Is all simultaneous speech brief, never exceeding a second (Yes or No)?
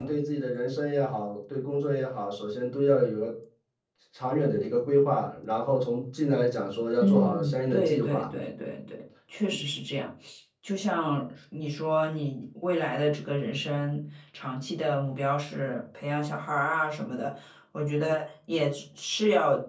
No